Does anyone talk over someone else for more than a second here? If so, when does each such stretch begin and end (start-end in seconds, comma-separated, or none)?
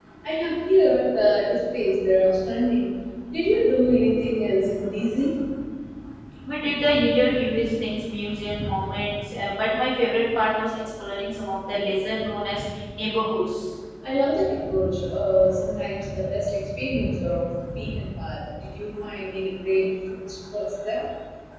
none